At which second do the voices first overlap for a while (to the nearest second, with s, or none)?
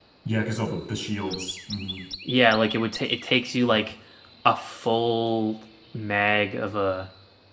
none